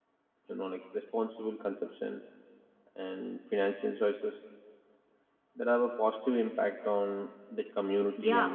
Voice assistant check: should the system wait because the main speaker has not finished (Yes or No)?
No